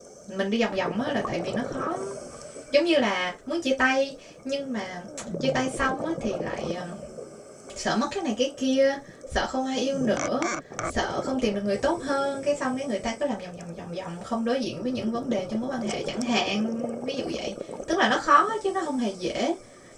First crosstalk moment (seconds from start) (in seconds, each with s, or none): none